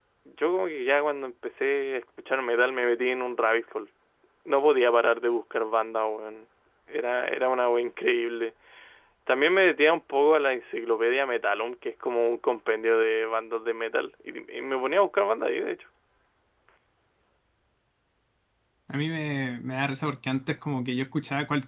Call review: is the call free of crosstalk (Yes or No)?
Yes